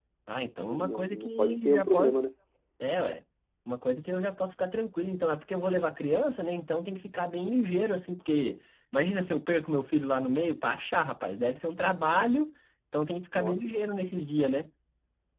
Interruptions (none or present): present